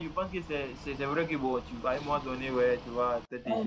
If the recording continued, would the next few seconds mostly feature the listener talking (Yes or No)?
No